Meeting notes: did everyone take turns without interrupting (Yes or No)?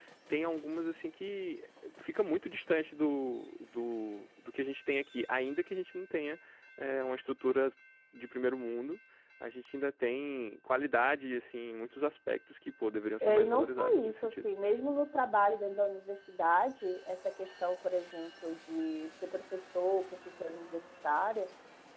No